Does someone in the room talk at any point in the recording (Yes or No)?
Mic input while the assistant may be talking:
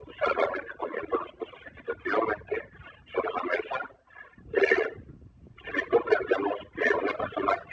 No